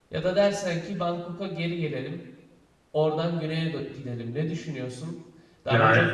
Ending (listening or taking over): listening